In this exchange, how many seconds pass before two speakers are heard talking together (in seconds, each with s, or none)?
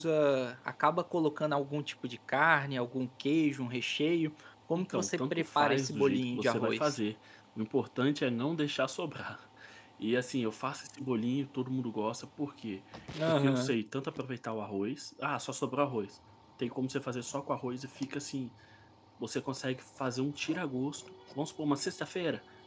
4.7 s